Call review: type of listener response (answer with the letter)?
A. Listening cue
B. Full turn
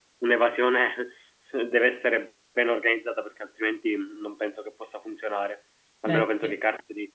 A